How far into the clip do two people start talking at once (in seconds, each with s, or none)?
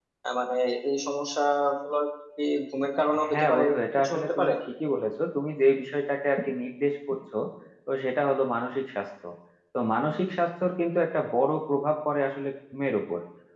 3.1 s